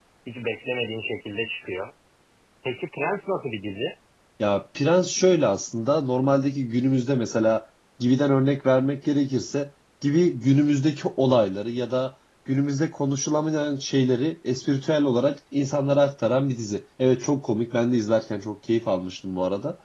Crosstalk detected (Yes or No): No